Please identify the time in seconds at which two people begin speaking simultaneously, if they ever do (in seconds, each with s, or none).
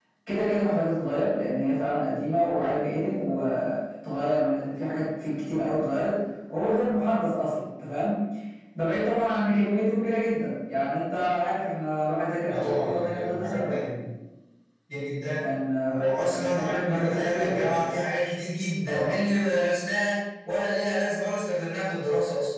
12.5 s